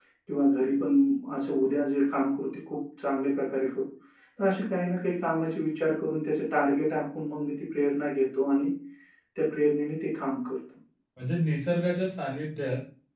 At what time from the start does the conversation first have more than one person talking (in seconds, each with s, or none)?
none